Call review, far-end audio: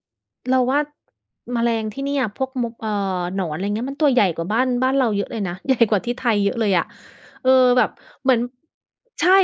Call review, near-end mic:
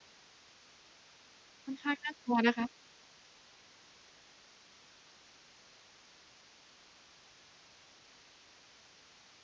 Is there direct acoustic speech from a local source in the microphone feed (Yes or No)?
Yes